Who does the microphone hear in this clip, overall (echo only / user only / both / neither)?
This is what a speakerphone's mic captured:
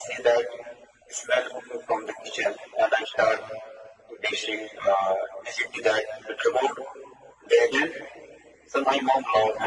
echo only